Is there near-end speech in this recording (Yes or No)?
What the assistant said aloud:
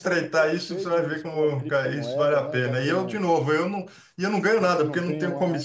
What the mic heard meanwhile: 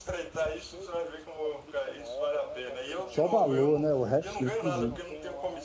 Yes